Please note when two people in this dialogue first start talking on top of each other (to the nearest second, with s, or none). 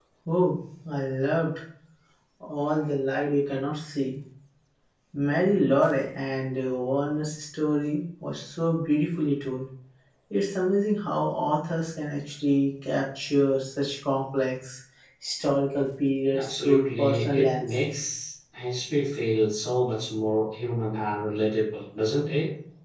16 s